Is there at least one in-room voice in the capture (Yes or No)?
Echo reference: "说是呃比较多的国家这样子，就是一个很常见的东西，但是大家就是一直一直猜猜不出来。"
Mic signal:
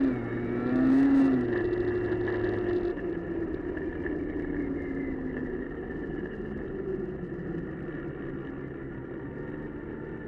No